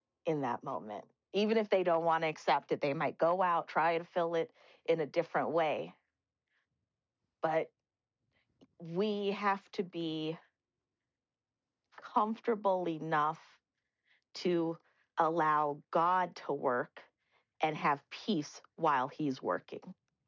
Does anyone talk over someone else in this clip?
No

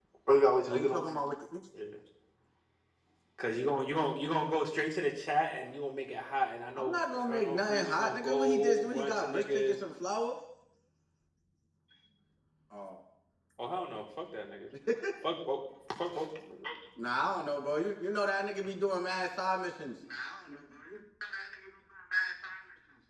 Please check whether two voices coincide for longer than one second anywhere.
Yes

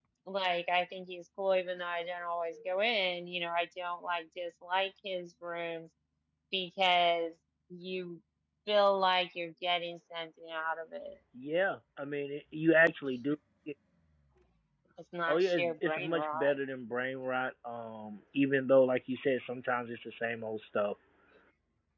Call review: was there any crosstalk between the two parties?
Yes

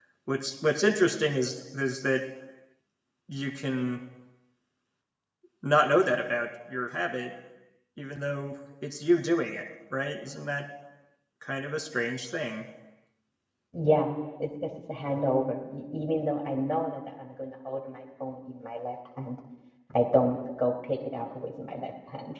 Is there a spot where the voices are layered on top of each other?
No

